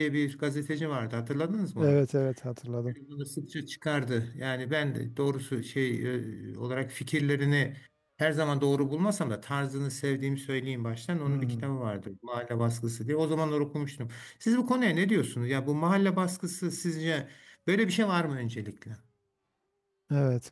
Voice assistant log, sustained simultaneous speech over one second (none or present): none